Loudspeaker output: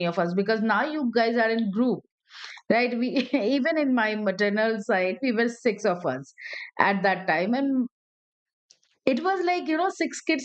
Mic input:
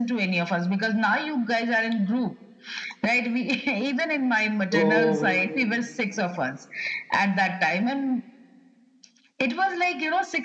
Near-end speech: present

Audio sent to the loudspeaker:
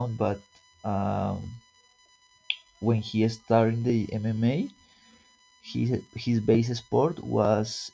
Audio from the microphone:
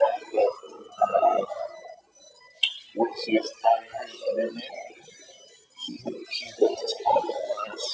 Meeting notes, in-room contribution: none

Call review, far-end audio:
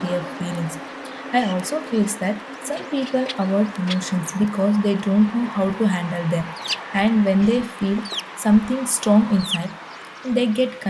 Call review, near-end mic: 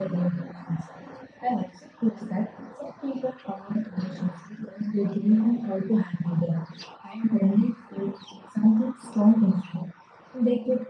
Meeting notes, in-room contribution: none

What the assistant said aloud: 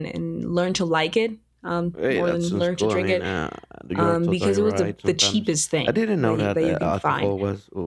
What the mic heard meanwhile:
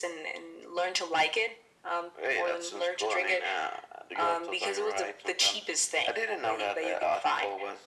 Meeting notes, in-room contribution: none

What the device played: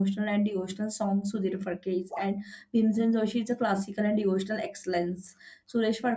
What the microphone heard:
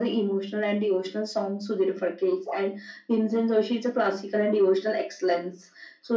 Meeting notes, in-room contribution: none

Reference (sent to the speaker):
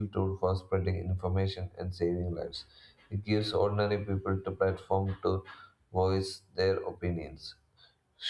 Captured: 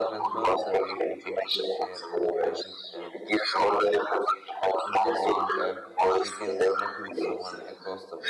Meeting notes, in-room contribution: present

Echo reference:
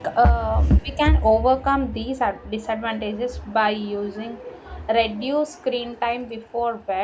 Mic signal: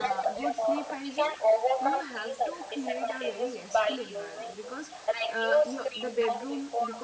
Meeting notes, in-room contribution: present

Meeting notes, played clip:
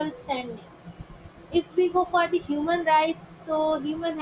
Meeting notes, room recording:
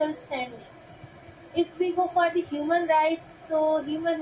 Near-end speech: none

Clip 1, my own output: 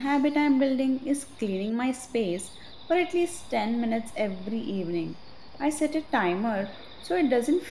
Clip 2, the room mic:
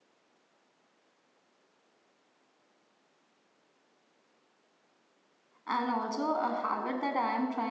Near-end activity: present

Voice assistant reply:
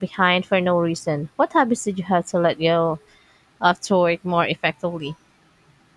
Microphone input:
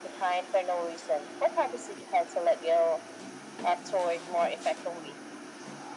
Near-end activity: none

